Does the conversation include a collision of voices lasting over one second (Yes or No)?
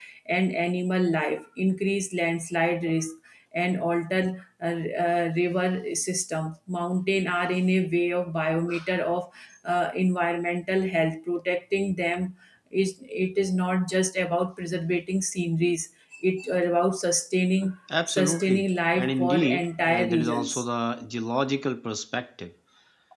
Yes